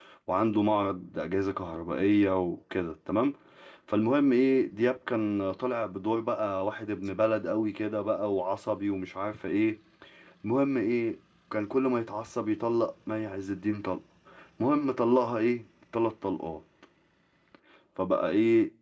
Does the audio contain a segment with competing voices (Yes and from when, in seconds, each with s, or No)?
No